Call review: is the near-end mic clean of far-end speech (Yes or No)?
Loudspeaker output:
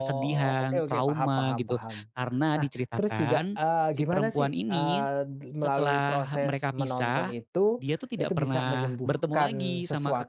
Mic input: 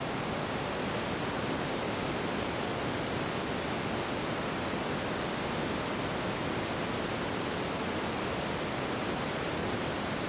Yes